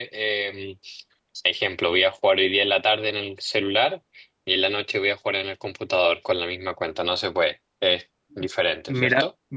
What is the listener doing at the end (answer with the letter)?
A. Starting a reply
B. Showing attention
A